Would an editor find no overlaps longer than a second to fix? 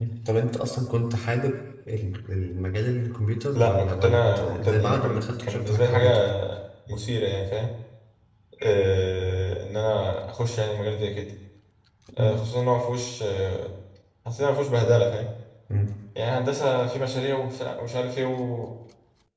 No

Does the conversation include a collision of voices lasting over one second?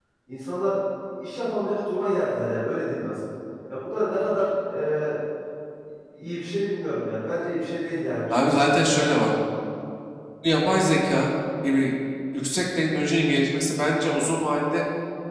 No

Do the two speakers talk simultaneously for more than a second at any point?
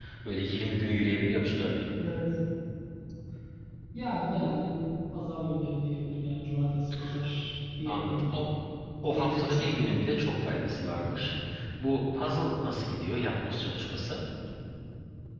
No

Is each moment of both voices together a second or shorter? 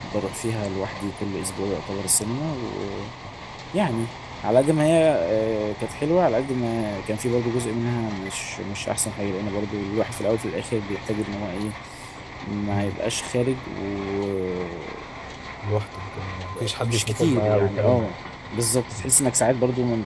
No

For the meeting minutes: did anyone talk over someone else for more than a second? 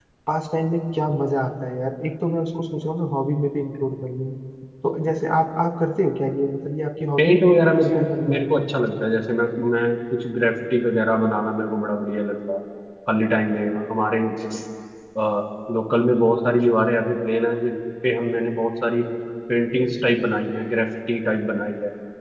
Yes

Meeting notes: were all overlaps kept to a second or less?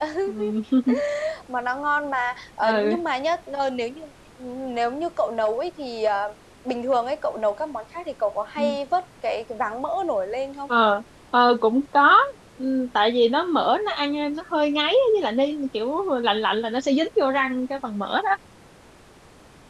Yes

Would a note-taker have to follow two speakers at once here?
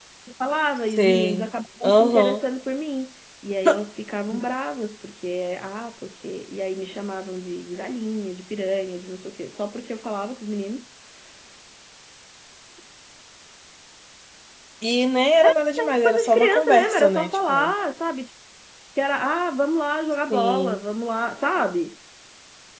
Yes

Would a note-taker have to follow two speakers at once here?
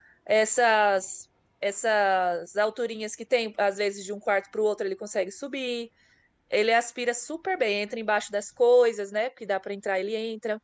No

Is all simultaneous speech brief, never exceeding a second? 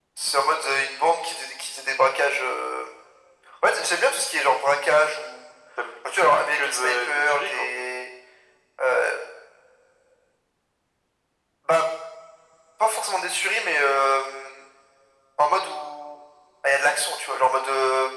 No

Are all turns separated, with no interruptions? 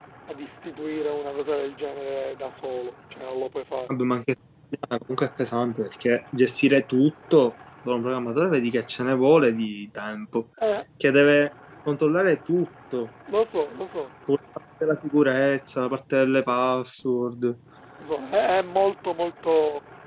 Yes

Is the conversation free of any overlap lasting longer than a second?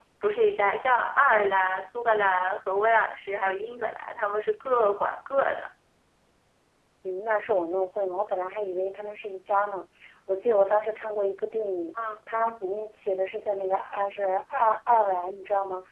Yes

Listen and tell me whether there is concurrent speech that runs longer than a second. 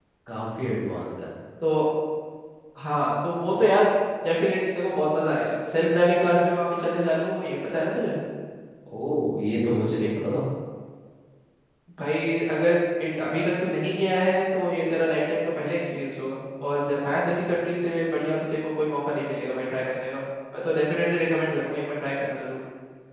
No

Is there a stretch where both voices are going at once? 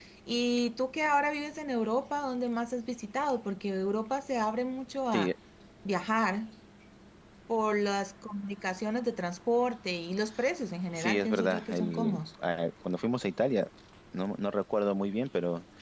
Yes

